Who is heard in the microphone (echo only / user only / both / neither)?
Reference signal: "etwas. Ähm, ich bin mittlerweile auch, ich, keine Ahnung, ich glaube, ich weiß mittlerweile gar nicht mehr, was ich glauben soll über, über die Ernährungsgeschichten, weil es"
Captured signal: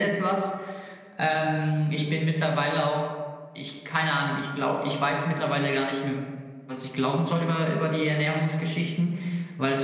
echo only